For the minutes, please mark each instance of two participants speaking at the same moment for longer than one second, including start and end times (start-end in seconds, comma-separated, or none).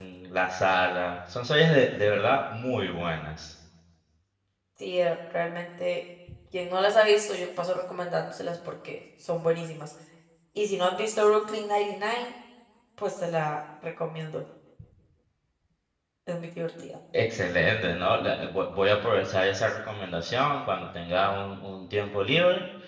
none